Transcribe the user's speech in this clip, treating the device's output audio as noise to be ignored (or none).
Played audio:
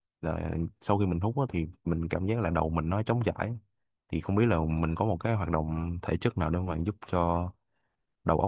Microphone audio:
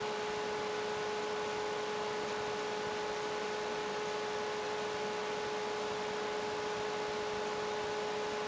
none